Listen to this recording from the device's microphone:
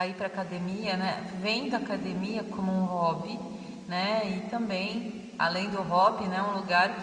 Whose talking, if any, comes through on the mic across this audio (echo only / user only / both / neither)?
user only